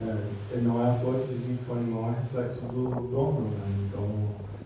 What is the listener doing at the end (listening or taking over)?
listening